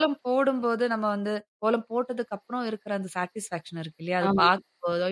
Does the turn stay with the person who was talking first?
Yes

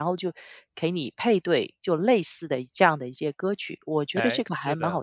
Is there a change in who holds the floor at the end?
Yes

